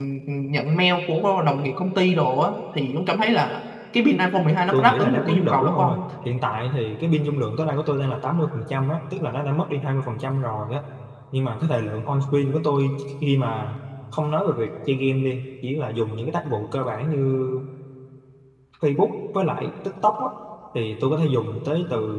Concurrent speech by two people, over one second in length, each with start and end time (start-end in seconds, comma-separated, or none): 4.7-6.0